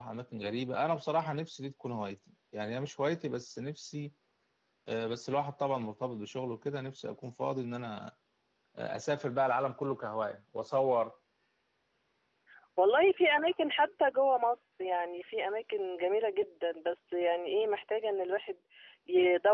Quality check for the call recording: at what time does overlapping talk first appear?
none

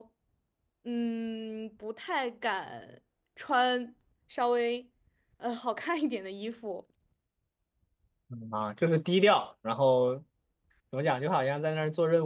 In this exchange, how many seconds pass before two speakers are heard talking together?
none

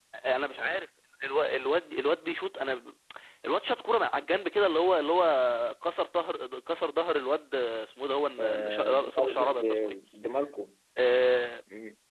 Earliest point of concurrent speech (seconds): 8.4 s

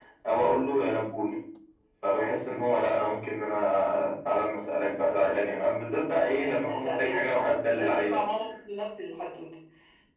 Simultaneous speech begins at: 6.1 s

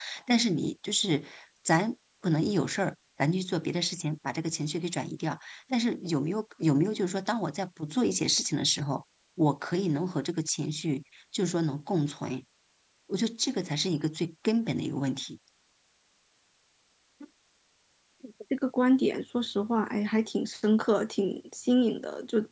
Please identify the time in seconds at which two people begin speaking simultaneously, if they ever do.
none

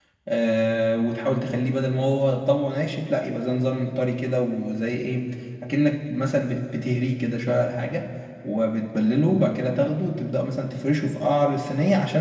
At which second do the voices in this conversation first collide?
none

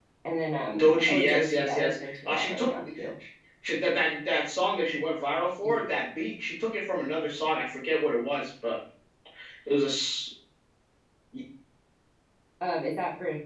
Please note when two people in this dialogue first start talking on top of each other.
0.8 s

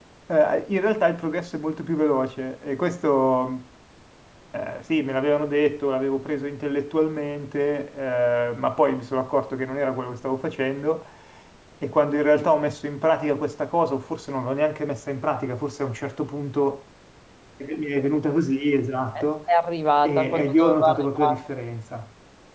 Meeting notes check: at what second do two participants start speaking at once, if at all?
20.0 s

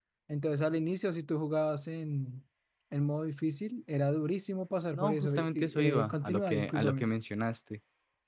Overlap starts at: 4.9 s

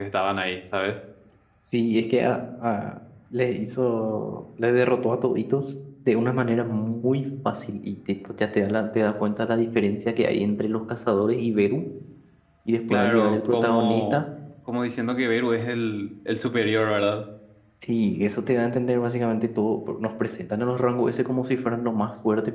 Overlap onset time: 12.9 s

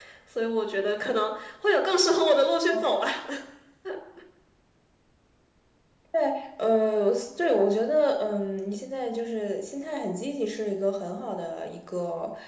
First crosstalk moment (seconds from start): none

